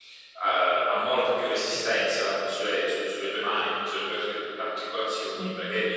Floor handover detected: No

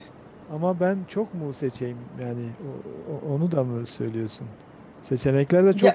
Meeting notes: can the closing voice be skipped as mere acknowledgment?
Yes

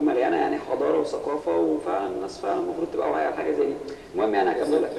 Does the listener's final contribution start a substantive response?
No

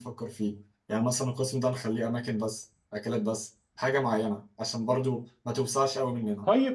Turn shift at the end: Yes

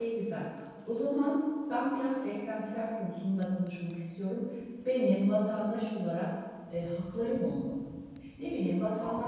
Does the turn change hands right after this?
Yes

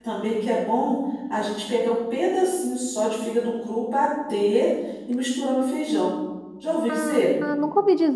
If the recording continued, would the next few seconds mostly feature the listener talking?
Yes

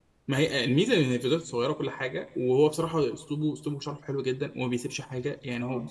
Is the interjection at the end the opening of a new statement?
No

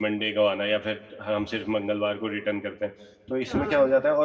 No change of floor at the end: Yes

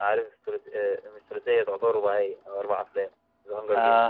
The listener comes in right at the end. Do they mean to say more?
Yes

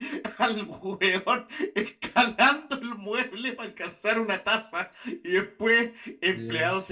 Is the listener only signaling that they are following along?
Yes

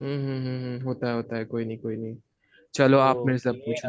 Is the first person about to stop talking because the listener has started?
Yes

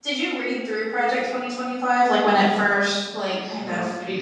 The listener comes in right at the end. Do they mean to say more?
Yes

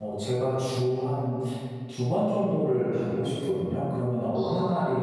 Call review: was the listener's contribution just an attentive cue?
Yes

